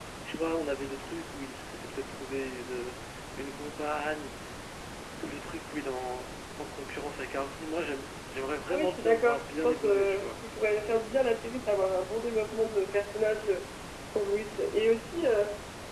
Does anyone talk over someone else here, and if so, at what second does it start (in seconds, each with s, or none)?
8.7 s